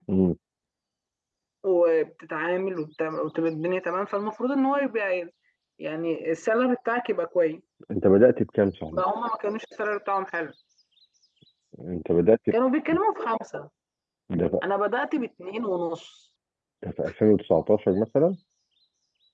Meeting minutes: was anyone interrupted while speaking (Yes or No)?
No